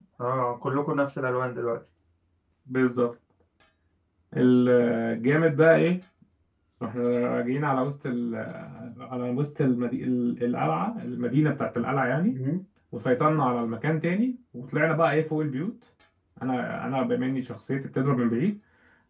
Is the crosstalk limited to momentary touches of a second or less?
Yes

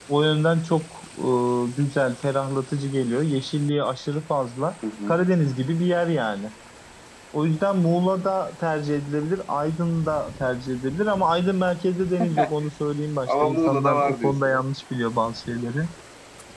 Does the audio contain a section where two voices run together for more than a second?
Yes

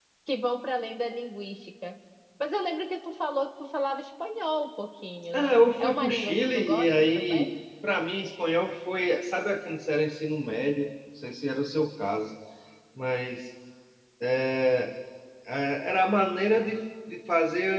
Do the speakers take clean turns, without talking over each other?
No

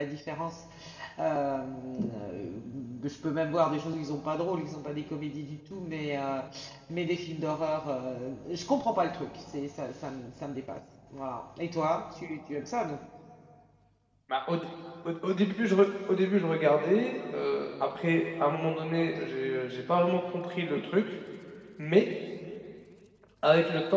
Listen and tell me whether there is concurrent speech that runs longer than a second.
No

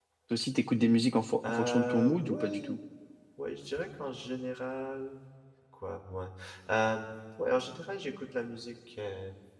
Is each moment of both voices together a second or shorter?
No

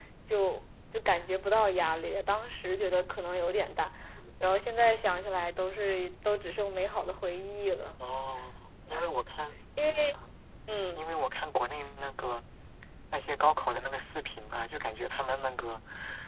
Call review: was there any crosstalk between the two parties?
No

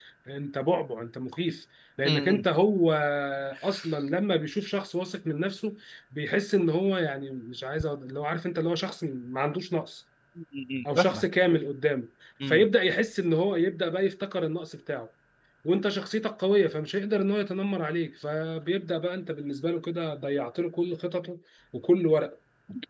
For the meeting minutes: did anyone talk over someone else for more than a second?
No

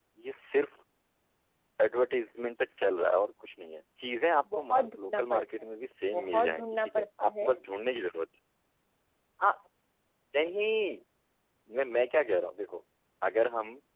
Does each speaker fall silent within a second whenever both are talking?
No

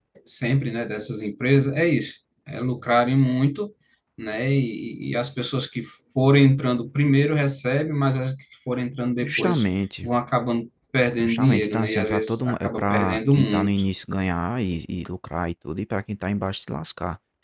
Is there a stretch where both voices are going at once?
Yes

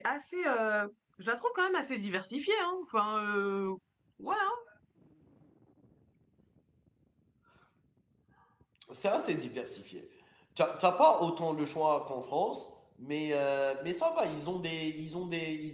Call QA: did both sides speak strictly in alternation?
Yes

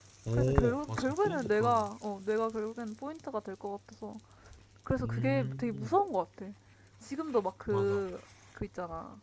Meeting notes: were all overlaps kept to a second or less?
No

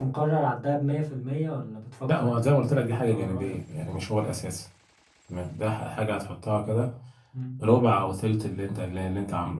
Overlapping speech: Yes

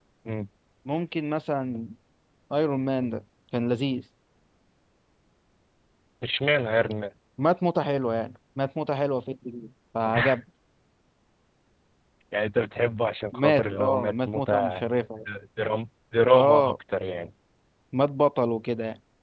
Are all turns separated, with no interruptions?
No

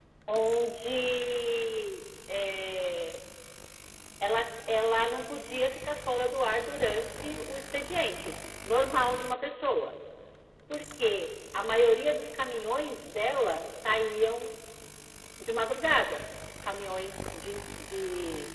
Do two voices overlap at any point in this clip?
No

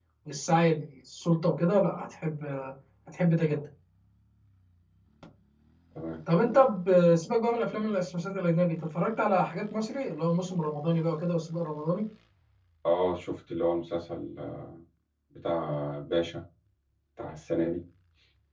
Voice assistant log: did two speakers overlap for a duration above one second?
No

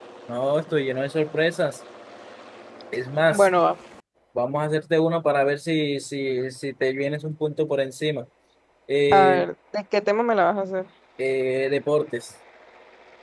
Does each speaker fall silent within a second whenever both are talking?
Yes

